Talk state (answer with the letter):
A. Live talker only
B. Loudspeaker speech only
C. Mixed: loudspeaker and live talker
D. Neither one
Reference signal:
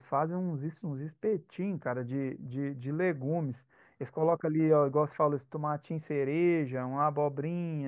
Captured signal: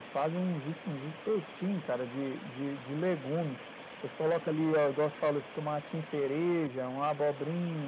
B